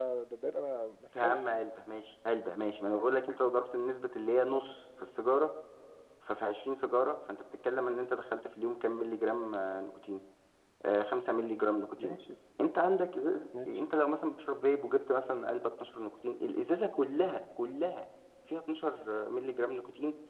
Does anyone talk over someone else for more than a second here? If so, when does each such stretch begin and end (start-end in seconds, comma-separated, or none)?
none